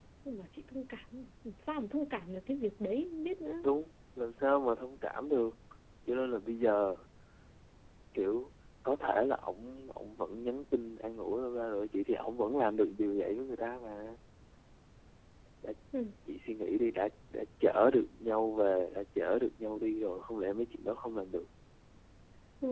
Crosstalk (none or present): none